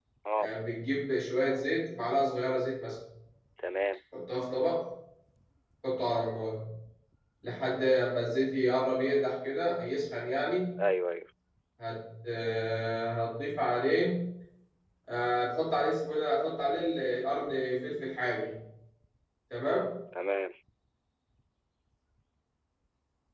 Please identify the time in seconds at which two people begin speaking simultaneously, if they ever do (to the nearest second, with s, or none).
none